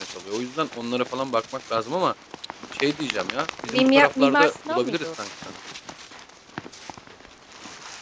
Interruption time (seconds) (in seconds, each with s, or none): 3.7 s